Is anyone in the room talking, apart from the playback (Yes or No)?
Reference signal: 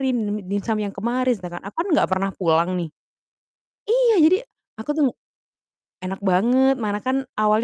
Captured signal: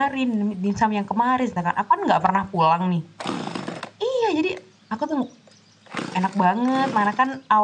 No